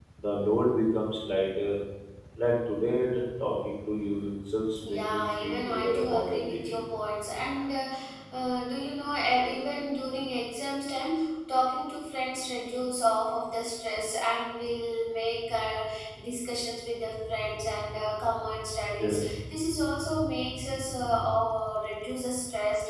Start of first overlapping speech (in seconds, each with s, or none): 4.8 s